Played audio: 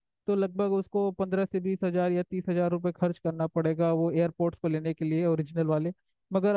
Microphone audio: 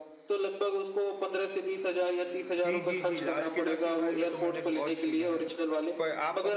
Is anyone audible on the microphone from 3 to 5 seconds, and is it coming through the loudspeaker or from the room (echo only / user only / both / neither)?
both